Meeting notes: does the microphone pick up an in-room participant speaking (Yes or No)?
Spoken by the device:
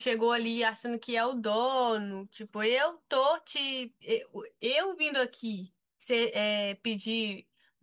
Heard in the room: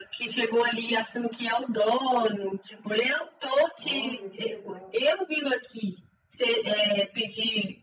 Yes